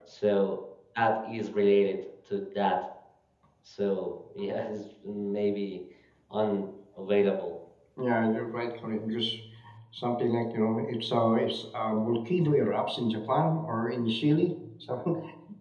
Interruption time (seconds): none

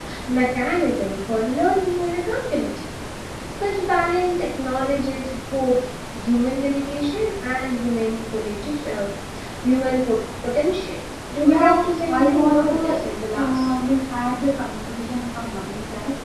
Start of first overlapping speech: 11 s

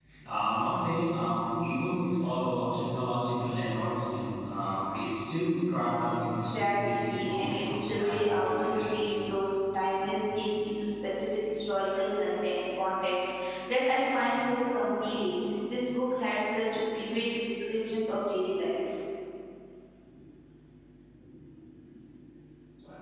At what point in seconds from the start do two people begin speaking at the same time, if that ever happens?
7 s

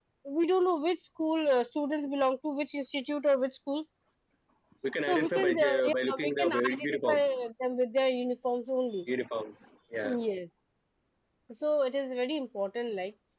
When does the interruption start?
5 s

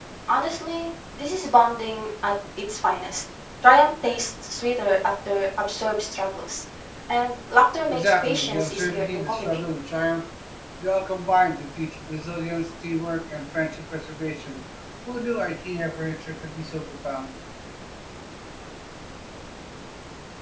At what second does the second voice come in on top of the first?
8 s

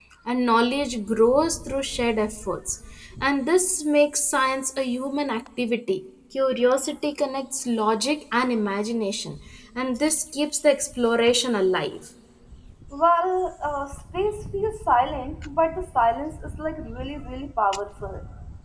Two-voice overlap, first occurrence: none

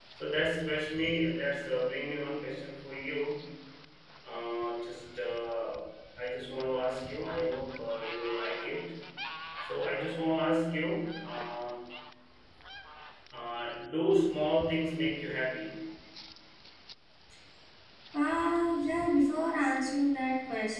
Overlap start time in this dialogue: none

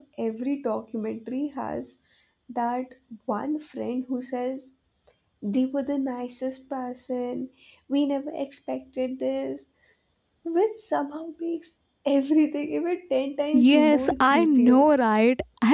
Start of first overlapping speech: 14 s

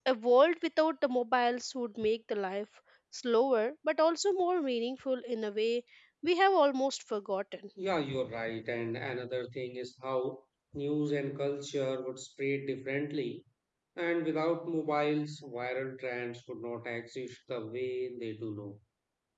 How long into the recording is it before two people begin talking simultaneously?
none

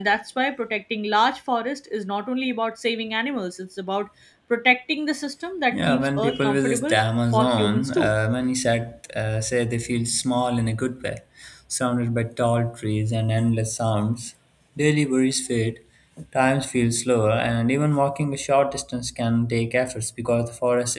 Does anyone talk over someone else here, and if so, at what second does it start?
6 s

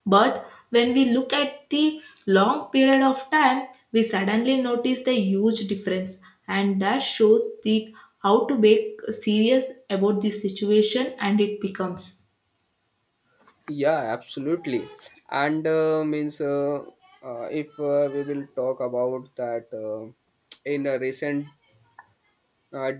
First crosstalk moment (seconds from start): none

